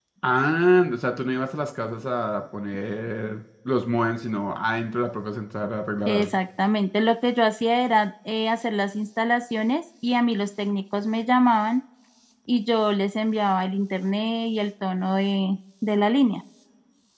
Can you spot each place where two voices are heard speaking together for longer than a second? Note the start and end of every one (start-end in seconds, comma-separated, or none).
none